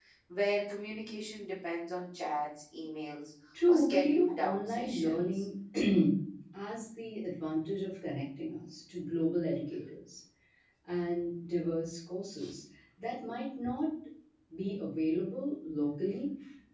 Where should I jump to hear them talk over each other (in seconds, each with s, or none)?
3.5 s